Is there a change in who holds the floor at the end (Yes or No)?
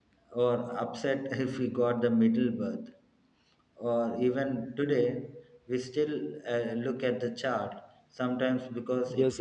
Yes